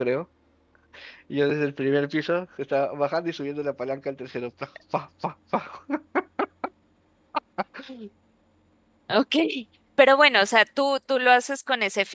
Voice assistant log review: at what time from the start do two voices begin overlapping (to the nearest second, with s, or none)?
none